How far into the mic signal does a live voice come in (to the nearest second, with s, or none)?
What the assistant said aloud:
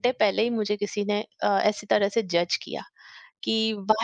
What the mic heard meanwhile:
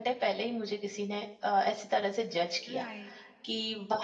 3 s